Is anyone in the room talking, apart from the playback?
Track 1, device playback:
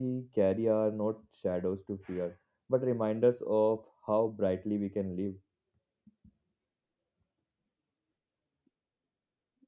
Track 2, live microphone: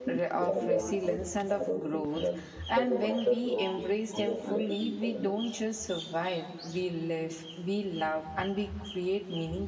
Yes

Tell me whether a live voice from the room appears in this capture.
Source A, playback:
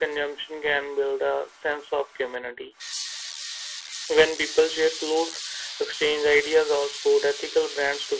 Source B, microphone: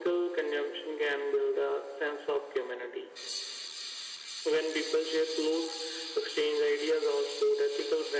No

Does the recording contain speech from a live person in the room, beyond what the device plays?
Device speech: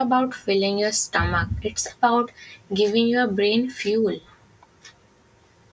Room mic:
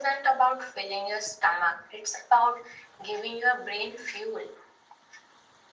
No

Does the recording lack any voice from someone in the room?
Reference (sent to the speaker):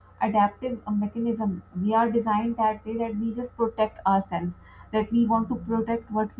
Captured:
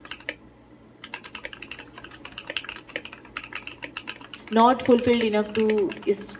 No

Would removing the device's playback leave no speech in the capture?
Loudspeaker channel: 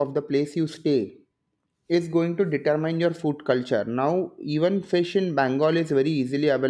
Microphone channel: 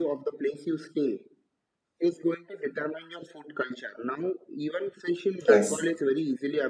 No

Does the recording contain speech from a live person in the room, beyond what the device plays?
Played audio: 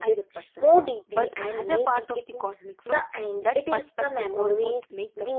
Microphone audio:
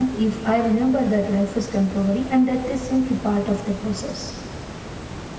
Yes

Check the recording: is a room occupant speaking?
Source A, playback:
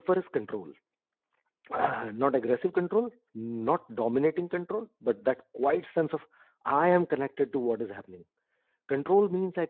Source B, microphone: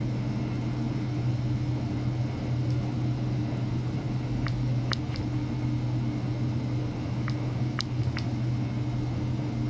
No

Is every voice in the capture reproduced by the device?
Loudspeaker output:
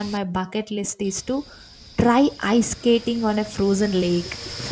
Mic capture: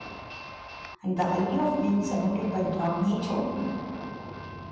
No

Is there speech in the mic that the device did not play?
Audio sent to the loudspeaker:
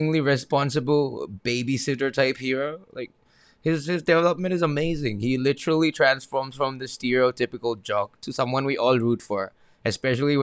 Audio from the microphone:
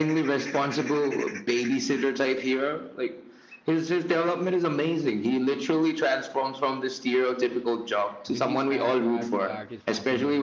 Yes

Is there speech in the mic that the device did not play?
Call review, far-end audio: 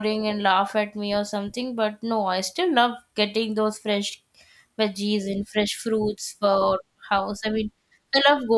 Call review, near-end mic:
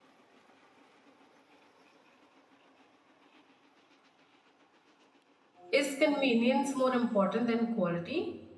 Yes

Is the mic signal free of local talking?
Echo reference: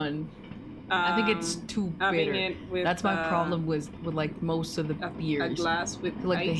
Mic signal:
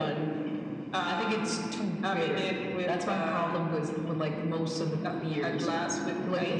Yes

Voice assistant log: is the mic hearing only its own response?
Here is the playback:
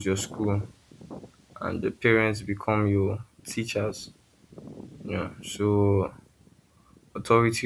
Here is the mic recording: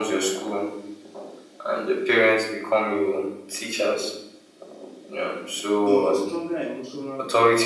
No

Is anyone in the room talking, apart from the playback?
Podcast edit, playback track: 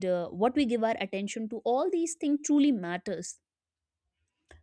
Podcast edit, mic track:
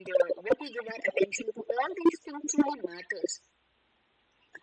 No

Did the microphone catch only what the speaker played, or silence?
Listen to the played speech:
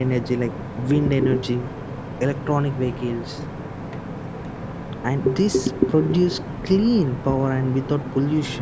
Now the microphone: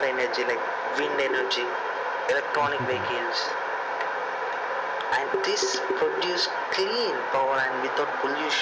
No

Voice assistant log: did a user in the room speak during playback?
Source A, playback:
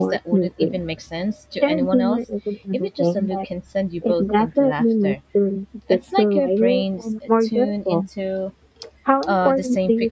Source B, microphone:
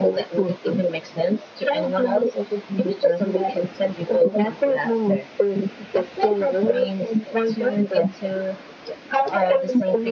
No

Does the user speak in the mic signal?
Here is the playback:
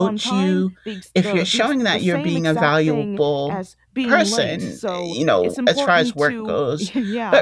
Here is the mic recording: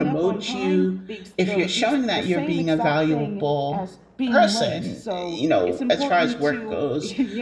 No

